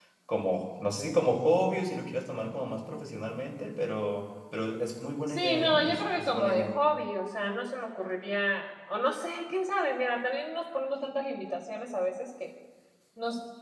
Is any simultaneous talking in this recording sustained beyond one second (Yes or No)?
Yes